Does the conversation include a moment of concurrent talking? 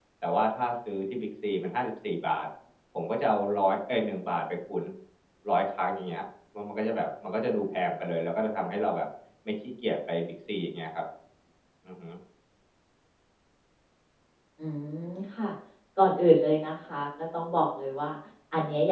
No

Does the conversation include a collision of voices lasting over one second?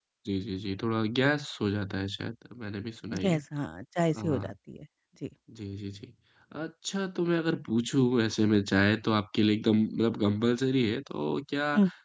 No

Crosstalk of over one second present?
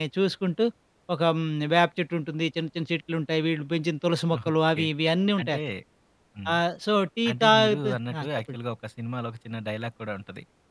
Yes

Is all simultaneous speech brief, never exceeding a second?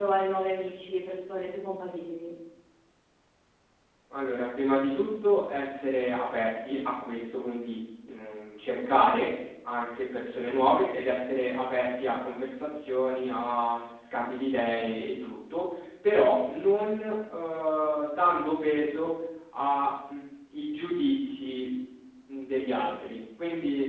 Yes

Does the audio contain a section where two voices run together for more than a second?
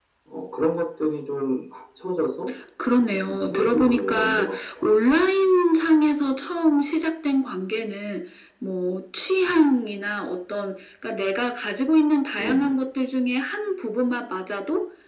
Yes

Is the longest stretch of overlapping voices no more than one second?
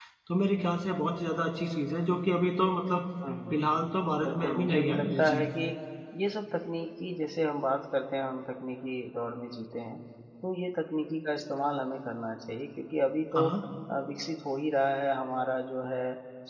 No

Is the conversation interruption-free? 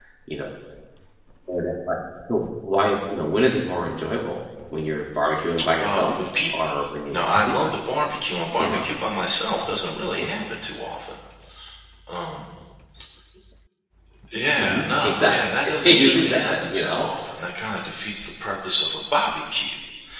No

